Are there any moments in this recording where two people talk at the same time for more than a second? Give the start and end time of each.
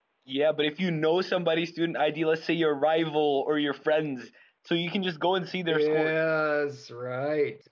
none

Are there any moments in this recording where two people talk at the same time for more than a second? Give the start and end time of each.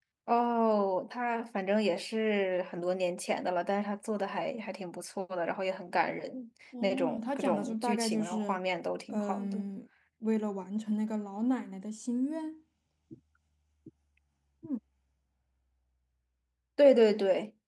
6.8-8.6

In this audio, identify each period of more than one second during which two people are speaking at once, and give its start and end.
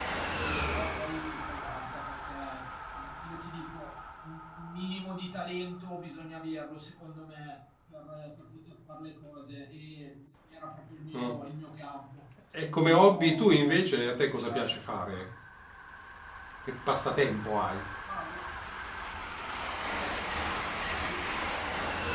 12.6-15.2

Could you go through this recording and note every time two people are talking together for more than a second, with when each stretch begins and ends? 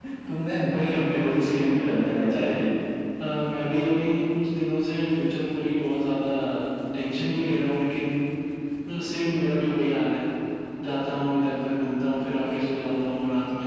0.7-2.6

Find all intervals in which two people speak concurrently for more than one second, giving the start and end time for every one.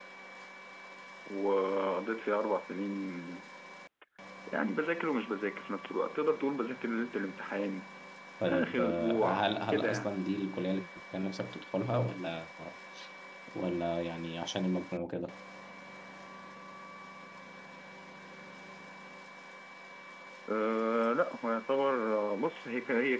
8.4-10.1

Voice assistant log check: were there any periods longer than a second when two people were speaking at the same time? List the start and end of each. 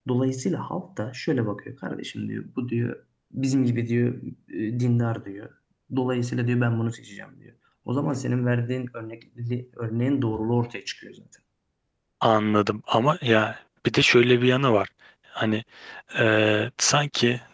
none

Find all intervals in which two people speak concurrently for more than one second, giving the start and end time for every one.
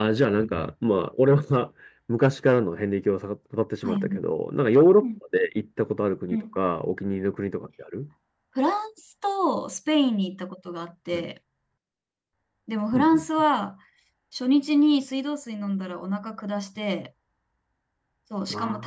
none

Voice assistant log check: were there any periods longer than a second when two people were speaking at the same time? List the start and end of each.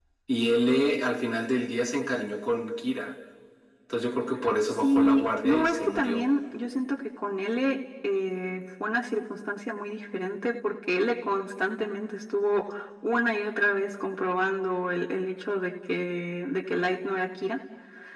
4.8-6.2

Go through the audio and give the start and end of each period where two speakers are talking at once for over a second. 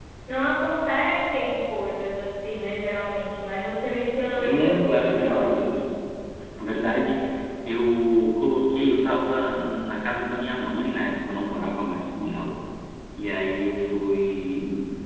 4.4-5.6

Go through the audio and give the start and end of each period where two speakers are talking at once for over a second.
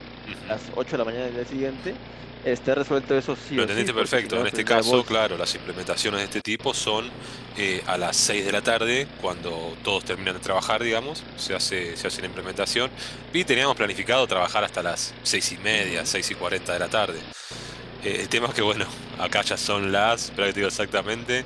3.6-5.2

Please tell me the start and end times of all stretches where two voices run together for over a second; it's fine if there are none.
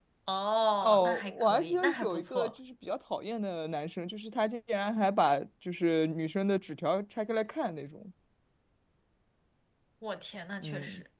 0.8-2.5

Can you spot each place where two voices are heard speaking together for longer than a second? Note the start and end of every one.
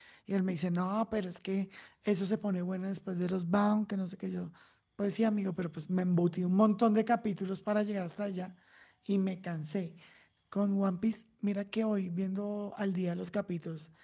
none

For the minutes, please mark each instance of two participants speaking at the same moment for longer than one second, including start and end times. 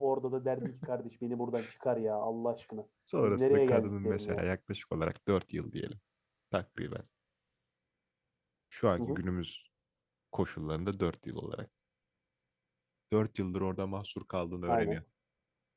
3.2-4.4

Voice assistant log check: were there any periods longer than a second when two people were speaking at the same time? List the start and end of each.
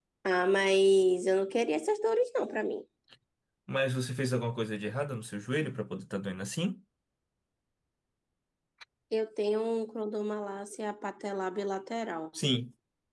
none

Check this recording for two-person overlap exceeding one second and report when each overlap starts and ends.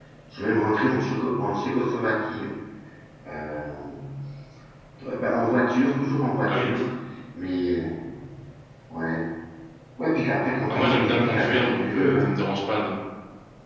10.7-12.3

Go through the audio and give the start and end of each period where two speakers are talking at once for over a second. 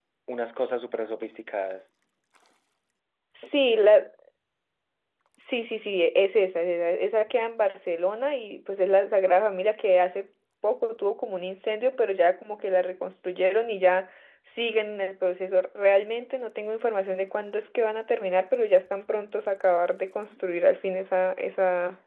none

